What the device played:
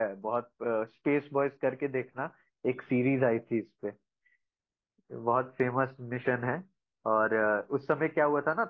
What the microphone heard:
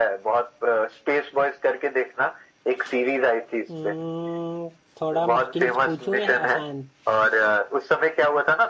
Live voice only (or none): हम्म, थोड़ा मुश्किल पूछूं या आसान